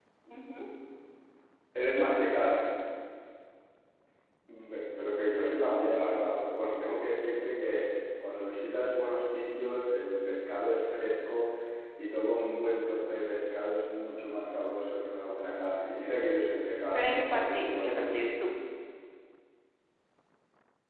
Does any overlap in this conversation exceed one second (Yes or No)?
Yes